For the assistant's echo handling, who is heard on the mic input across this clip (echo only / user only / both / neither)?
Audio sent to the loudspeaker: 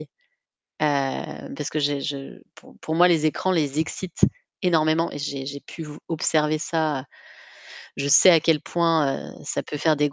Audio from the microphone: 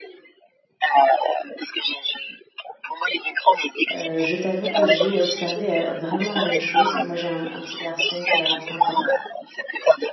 both